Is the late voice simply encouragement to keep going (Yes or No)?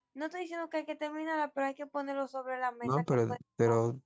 No